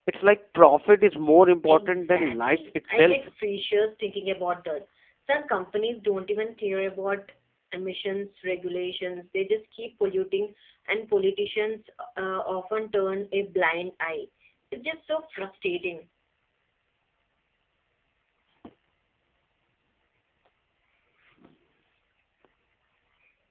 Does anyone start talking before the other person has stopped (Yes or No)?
Yes